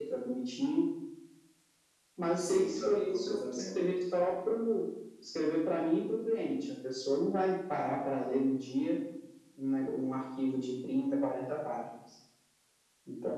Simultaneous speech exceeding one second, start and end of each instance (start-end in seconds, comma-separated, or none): 2.4-3.9